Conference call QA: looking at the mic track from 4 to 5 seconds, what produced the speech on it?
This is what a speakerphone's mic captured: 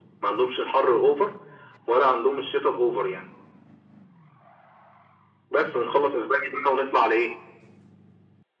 neither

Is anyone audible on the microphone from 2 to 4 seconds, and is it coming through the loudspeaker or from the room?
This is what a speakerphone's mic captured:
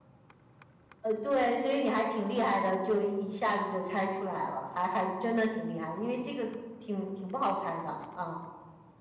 echo only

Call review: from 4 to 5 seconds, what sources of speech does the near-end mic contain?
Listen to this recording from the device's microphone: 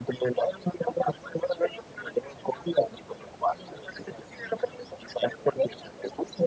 echo only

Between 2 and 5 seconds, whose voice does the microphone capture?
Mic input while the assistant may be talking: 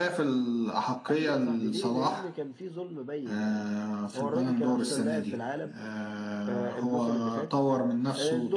echo only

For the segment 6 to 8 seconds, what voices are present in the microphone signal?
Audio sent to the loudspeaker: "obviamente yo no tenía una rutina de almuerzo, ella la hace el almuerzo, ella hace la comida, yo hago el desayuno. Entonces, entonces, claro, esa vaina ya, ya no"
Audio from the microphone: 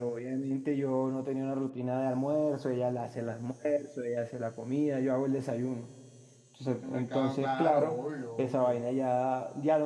both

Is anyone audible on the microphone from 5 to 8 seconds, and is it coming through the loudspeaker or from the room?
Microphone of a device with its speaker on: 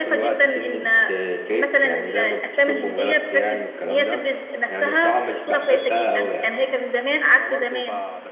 both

